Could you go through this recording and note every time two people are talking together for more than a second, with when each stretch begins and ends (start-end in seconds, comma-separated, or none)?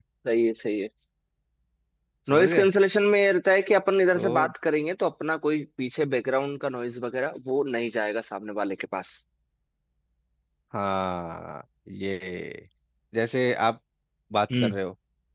none